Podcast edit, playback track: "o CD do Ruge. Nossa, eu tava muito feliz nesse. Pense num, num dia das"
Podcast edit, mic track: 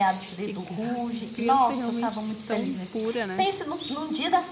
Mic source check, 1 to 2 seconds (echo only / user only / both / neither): both